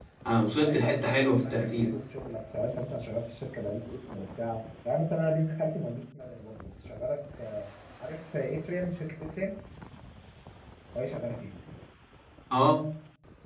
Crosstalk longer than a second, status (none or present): present